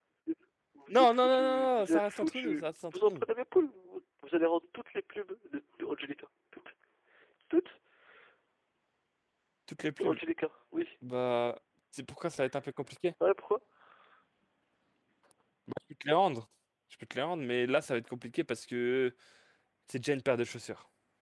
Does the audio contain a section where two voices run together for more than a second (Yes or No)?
Yes